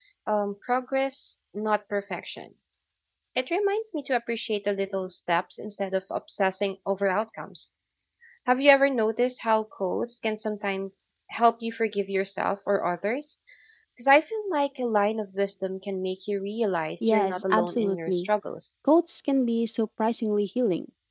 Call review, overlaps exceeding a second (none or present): present